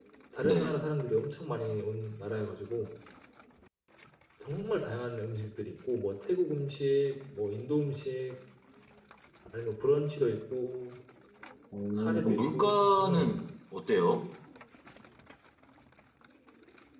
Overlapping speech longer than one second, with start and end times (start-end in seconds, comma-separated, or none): 12.0-13.4